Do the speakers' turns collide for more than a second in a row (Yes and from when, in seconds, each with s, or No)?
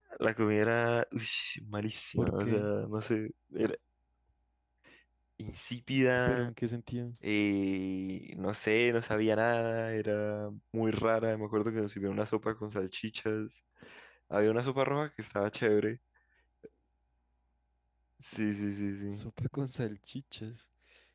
No